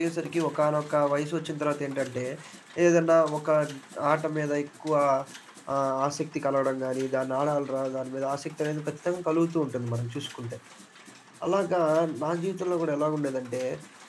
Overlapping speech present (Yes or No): No